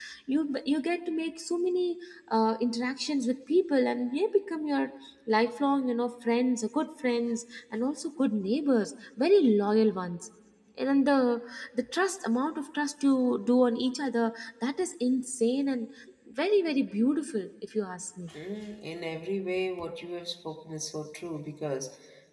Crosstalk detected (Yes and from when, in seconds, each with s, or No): No